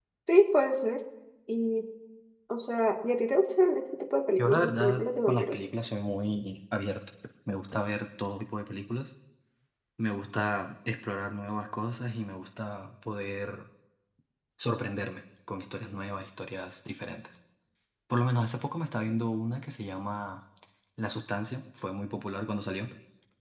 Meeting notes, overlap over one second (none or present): present